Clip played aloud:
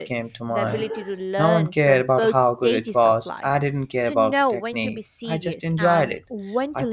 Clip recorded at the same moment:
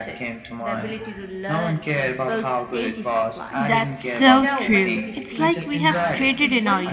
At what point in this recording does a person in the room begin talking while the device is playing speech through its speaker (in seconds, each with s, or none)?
3.5 s